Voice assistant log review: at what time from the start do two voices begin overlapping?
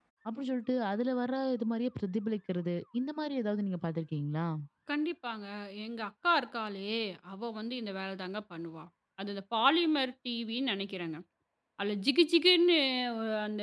none

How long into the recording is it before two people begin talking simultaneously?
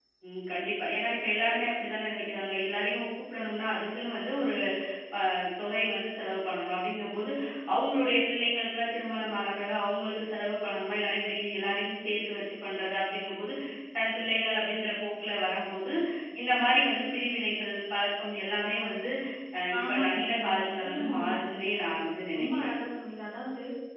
20 s

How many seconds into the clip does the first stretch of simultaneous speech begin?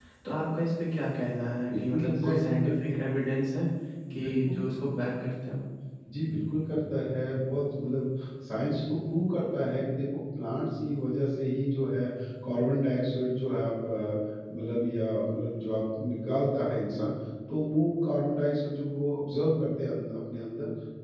2 s

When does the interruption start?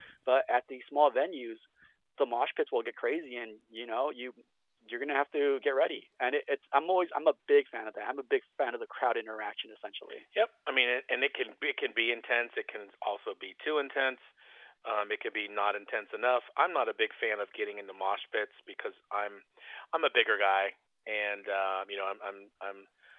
none

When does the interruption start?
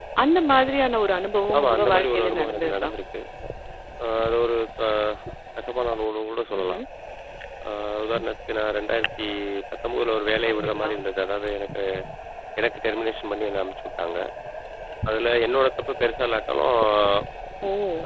2 s

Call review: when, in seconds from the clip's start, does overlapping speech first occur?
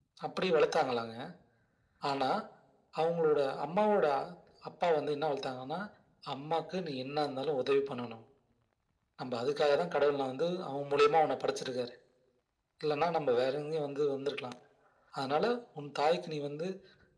none

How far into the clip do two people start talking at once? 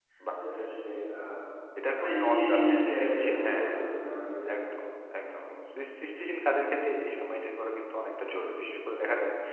2 s

